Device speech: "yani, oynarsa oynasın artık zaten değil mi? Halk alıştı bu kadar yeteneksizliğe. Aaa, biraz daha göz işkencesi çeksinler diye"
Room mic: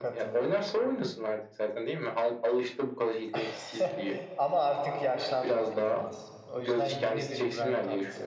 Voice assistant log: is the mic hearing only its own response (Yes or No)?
No